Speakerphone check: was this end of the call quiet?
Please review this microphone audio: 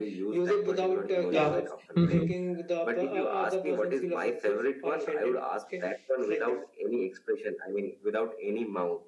No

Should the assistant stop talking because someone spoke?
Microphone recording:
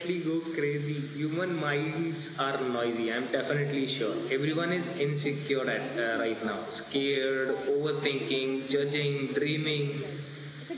Yes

